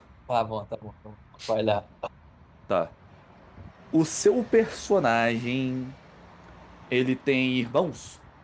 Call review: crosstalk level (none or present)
none